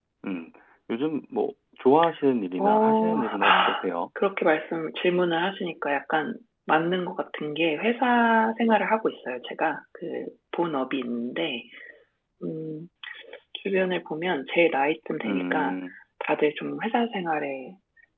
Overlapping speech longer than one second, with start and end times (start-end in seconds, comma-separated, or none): 2.6-3.9